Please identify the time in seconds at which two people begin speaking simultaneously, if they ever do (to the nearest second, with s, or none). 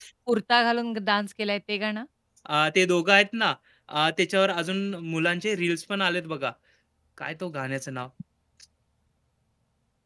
none